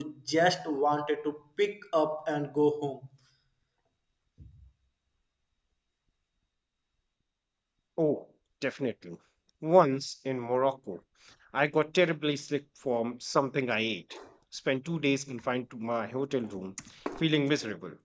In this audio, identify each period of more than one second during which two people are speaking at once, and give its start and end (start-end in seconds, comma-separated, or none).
none